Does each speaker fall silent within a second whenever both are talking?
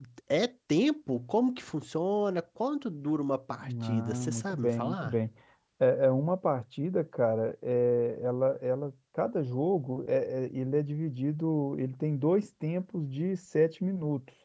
No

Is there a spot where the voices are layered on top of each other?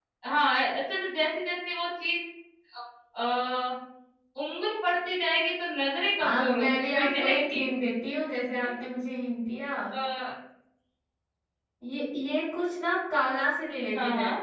Yes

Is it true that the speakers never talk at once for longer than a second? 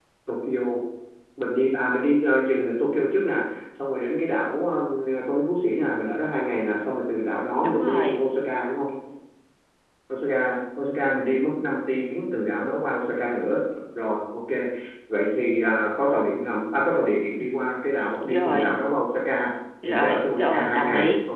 No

